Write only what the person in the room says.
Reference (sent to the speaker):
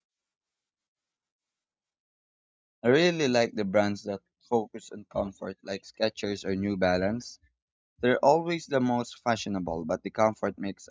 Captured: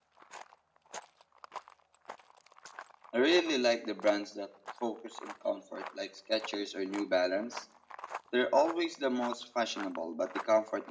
none

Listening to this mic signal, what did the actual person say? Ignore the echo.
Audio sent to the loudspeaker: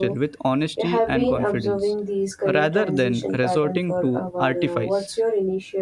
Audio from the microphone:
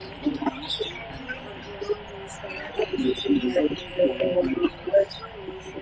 none

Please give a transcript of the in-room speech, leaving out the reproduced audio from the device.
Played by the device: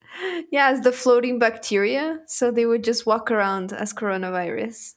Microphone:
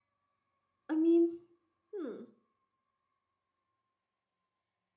I mean, hmm.

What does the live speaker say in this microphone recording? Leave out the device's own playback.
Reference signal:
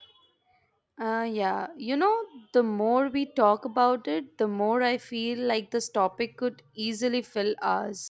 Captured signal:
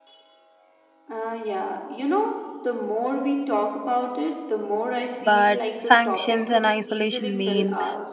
but sanctions and isolation mean

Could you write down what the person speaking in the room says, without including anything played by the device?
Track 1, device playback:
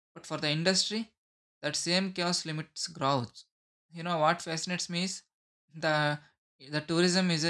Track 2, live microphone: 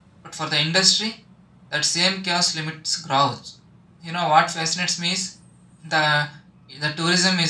none

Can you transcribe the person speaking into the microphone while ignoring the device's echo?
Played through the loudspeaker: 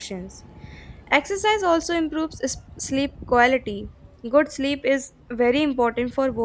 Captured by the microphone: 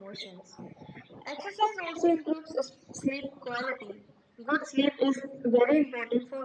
none

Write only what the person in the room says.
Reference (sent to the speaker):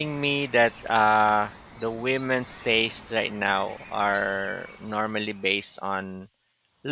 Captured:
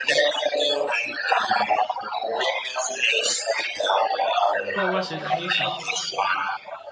what was it based on

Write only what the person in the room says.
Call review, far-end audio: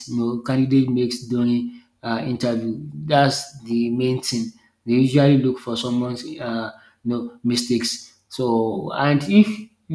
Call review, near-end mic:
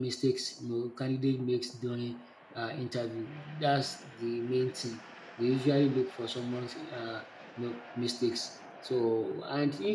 none

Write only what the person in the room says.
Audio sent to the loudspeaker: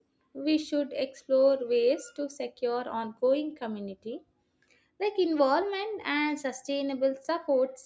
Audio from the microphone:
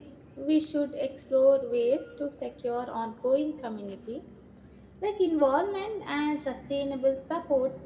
none

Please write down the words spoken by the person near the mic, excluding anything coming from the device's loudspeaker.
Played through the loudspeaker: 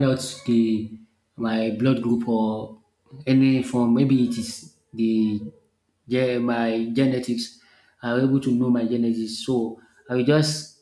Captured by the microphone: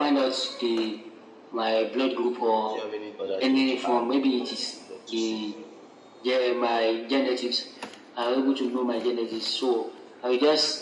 do you have any other thing to add or you love to say?

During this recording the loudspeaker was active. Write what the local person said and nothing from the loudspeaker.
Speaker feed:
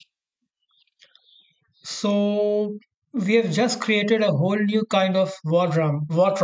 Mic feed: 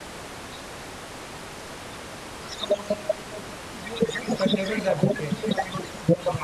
the devil's advocate.

